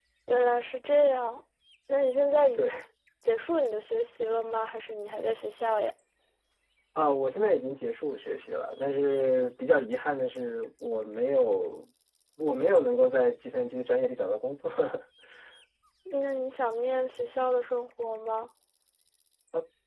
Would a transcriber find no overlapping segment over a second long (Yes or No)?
Yes